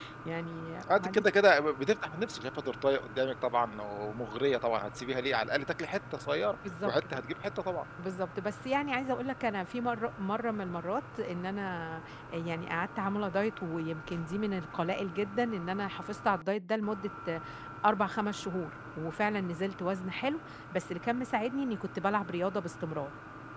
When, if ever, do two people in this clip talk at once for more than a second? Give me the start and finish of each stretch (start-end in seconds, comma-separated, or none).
none